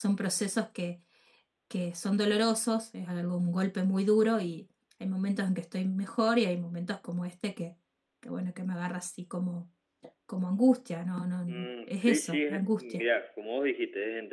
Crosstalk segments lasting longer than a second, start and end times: 11.5-13.0

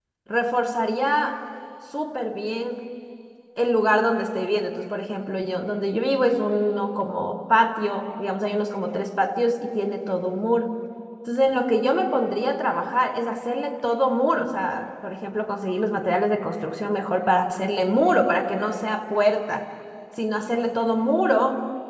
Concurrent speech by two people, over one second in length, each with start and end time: none

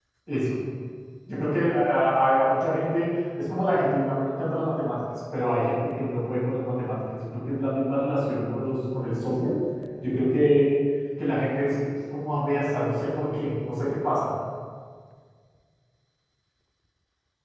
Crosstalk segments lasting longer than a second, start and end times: none

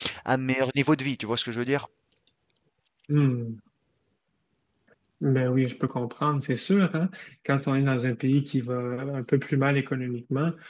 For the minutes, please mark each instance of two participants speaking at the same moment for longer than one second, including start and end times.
none

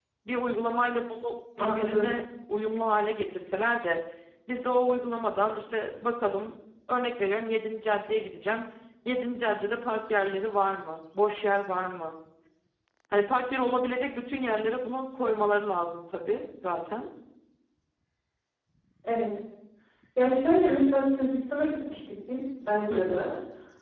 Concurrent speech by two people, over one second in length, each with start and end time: none

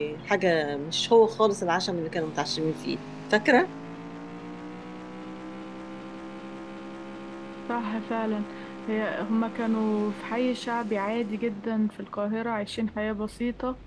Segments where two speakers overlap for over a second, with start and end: none

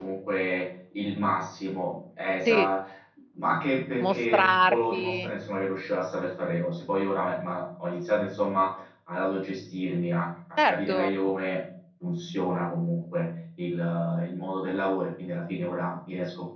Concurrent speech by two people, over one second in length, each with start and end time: 4.0-5.3

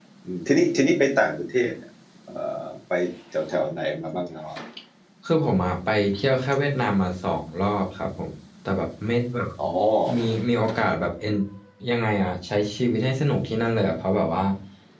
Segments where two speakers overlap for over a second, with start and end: none

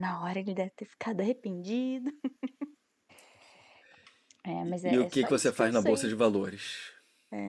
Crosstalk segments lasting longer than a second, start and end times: 4.8-6.1

